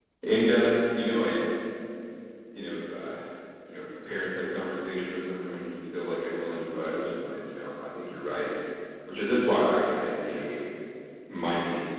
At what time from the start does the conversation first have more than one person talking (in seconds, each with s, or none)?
none